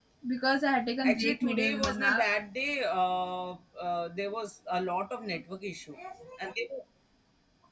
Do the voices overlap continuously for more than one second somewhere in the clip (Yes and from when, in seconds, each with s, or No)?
Yes, from 1.0 s